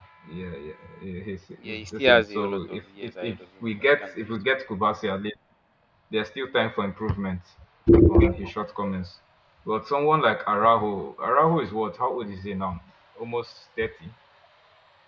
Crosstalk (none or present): present